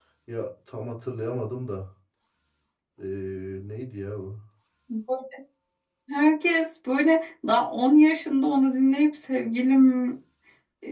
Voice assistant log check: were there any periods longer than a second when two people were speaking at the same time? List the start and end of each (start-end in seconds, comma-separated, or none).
none